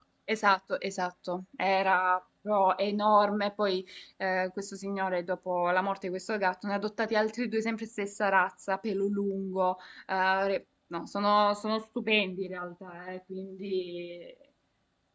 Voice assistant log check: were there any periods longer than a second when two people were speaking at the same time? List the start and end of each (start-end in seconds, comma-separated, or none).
none